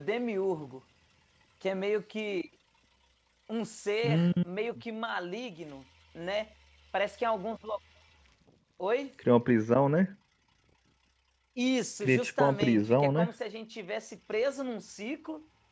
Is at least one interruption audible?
Yes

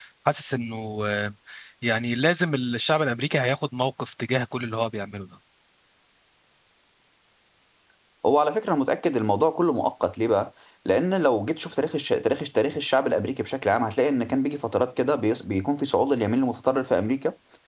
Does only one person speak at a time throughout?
Yes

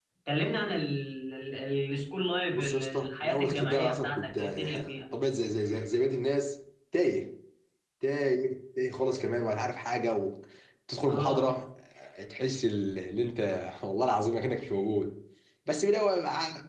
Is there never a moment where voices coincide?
No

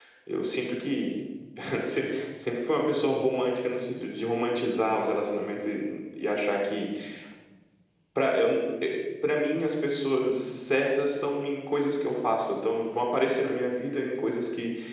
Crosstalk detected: No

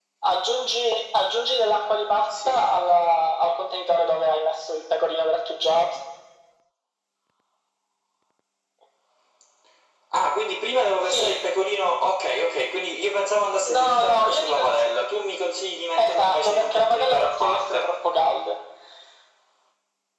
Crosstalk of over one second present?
Yes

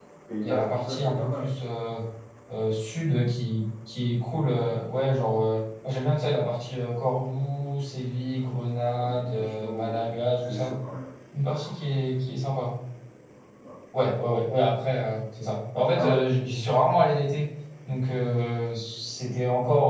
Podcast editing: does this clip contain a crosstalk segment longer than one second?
Yes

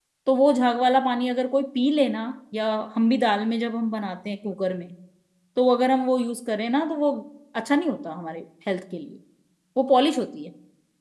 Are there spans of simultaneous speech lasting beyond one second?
No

